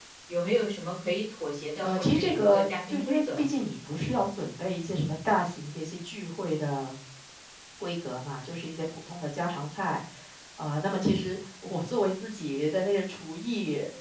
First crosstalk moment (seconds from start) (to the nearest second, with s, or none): 2 s